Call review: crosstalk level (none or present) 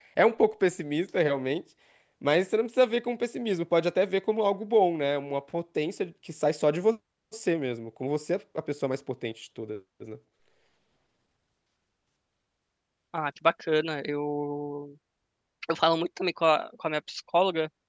none